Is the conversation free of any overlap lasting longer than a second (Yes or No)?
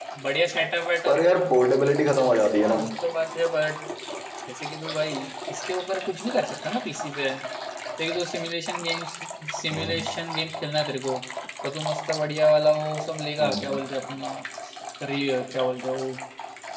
Yes